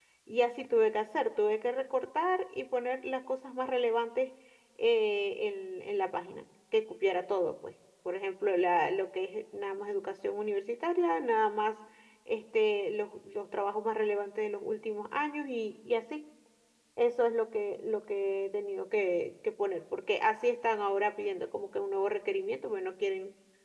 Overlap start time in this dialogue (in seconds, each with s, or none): none